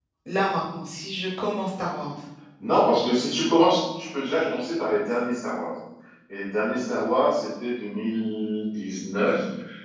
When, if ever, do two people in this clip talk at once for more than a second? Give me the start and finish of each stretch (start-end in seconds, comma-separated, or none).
none